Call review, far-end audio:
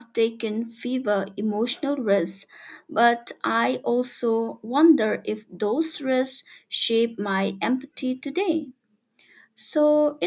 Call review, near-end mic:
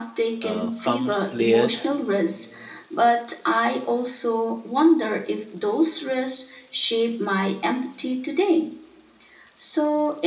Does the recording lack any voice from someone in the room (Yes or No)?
No